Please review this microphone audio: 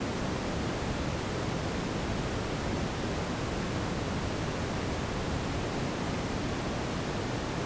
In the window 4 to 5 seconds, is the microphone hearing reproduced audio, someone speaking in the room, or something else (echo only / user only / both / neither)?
neither